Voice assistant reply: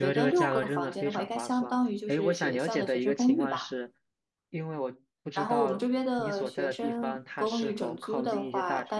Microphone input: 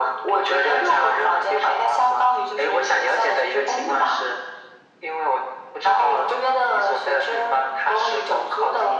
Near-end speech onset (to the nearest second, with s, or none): none